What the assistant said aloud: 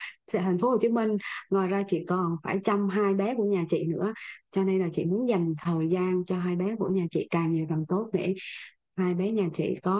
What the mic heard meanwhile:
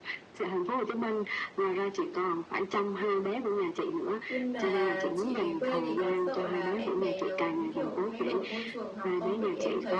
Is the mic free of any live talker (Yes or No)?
No